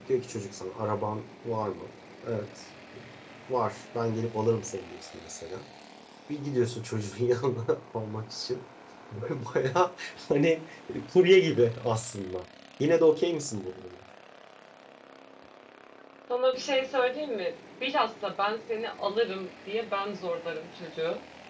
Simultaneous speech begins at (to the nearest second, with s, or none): none